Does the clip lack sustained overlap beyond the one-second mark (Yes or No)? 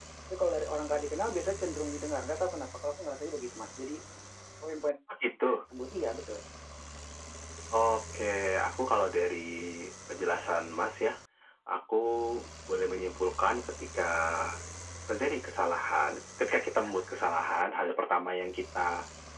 Yes